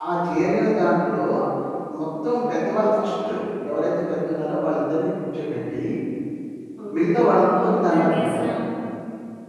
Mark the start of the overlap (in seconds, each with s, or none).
6.9 s